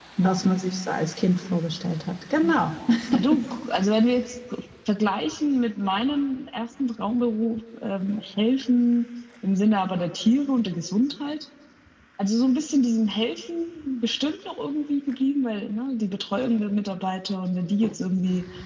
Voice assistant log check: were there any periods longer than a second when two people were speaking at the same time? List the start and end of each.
none

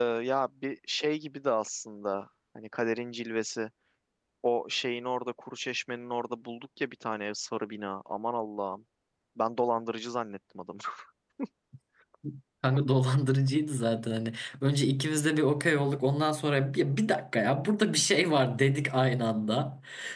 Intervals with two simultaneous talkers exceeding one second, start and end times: none

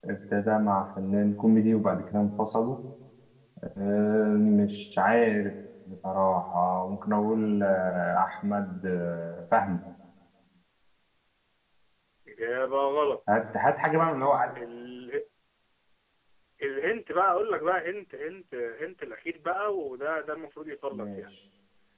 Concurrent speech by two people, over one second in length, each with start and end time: none

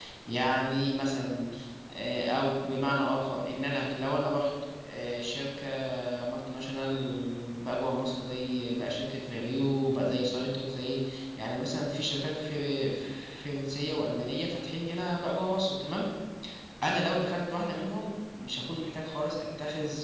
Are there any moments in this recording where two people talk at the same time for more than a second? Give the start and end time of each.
none

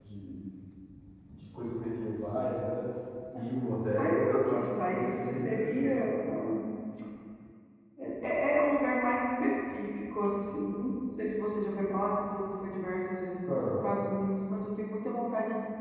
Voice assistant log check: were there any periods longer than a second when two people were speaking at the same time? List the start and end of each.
4.0-6.2

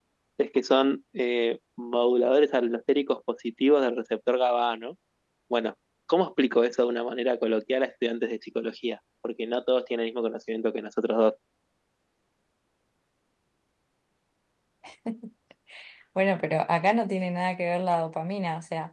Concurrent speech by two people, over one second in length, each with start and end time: none

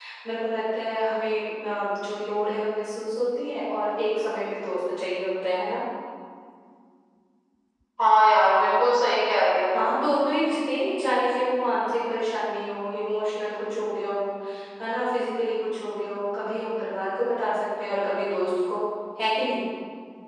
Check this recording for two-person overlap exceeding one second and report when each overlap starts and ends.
none

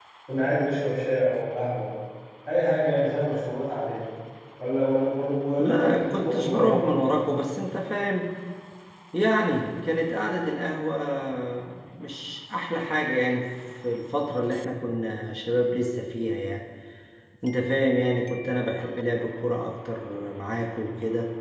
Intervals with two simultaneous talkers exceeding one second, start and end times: 5.6-6.9

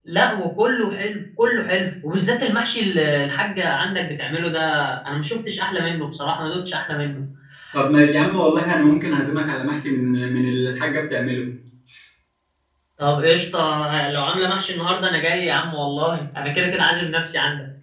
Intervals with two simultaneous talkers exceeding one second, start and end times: none

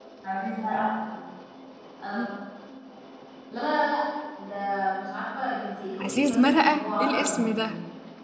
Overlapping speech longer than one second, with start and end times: 6.0-7.7

